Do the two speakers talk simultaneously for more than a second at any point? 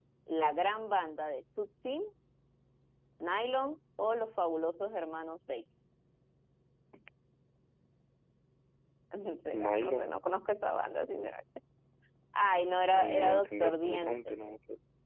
Yes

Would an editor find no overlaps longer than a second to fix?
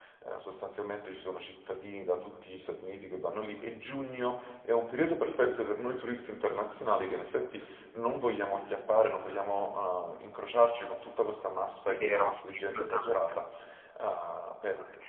No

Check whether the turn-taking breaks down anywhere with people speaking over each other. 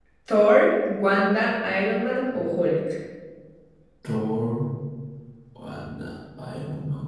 No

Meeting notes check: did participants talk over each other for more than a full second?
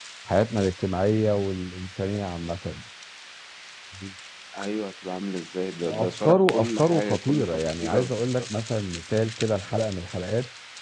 Yes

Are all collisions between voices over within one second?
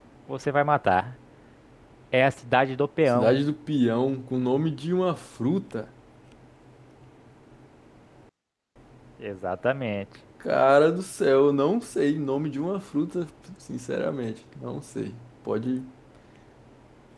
Yes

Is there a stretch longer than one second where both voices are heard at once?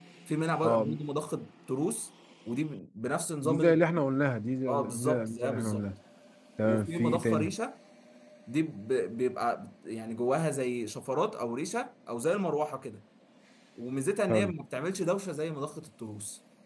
Yes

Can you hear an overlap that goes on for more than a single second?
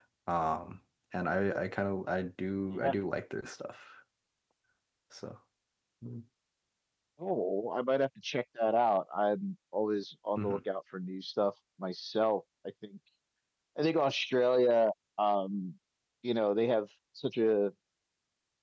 No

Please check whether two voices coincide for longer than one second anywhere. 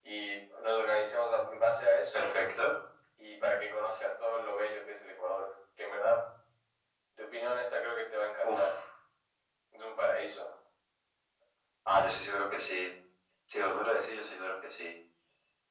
No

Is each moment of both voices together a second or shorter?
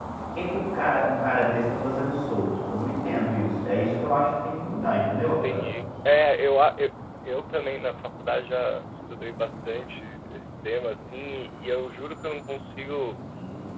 Yes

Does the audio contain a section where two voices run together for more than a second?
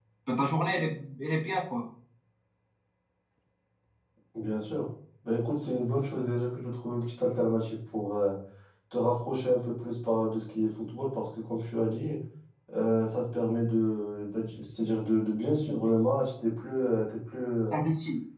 No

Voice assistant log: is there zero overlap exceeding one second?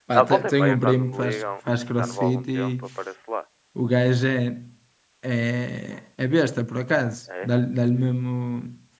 No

